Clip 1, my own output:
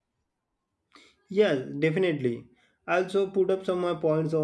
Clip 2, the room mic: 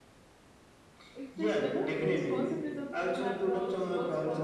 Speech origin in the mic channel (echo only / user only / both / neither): both